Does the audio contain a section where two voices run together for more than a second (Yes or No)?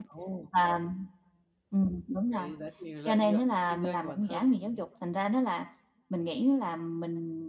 Yes